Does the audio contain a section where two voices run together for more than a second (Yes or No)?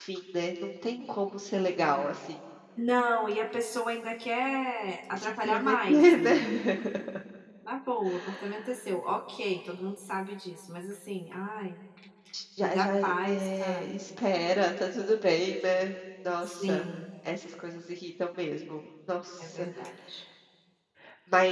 Yes